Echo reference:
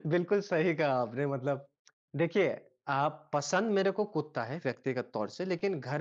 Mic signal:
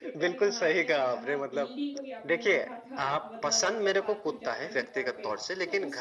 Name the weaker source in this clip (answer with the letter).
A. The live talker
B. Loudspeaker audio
A